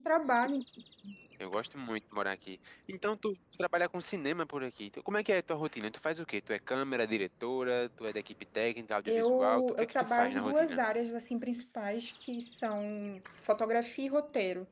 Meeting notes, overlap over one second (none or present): present